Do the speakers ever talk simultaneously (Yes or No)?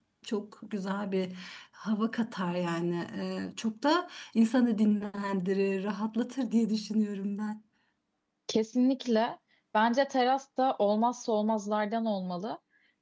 No